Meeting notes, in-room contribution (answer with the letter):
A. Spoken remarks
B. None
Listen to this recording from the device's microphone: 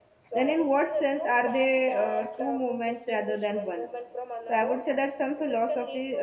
A